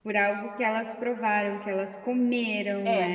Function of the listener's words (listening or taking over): taking over